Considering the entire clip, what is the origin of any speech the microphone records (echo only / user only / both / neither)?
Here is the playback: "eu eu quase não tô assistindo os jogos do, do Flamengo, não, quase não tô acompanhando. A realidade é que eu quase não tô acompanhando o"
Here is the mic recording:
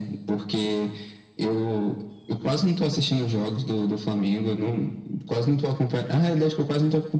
echo only